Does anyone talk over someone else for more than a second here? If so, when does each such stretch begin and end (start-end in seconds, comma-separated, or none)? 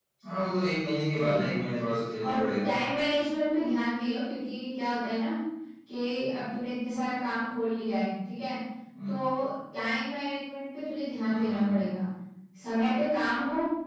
none